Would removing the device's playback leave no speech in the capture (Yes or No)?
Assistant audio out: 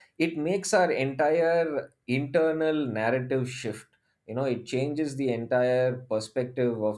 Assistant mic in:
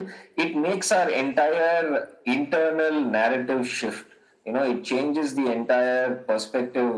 Yes